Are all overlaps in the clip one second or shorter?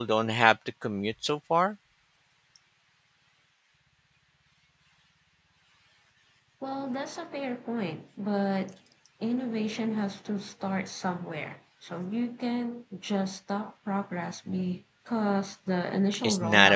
Yes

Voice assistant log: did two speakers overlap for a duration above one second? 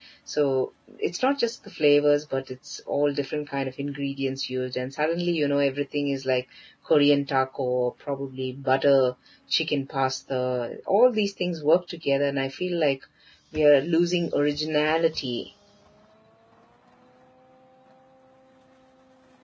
No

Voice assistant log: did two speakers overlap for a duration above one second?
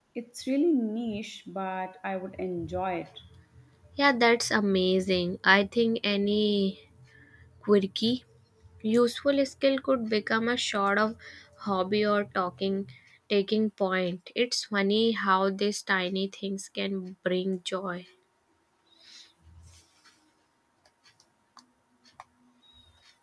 No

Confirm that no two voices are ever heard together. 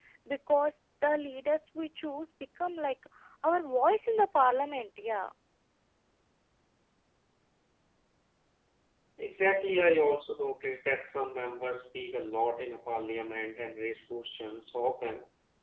Yes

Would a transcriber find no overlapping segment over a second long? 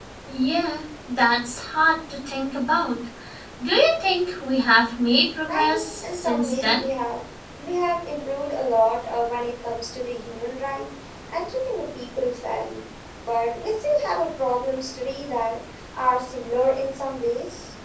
No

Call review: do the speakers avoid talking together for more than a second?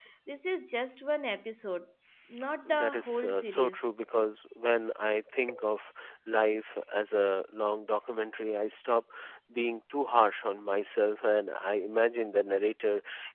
No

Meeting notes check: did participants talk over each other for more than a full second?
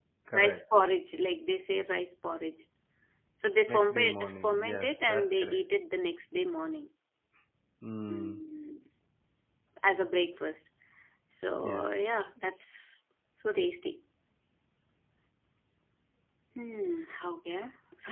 Yes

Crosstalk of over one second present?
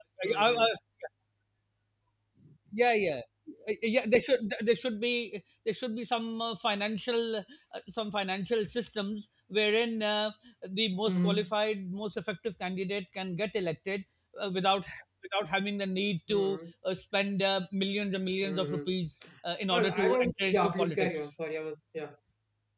Yes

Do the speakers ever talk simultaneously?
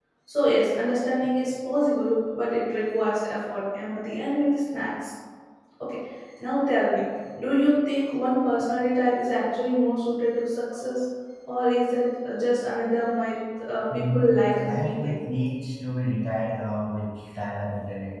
Yes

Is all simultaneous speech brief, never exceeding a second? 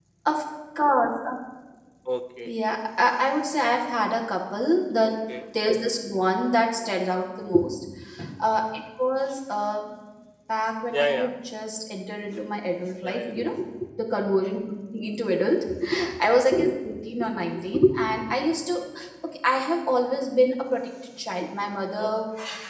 Yes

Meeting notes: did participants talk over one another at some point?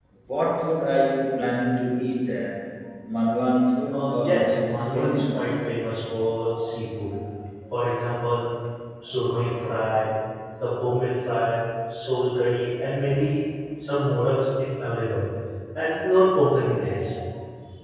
Yes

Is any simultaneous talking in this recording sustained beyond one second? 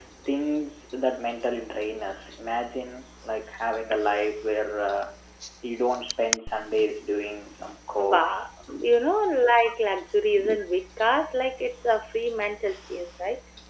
No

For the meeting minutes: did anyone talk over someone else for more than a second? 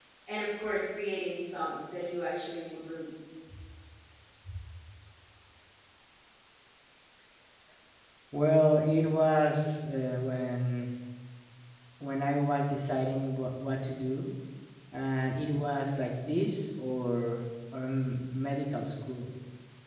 No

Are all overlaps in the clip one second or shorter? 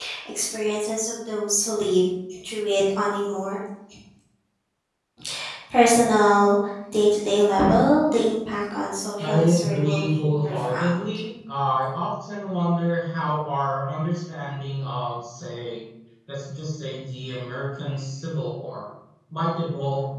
No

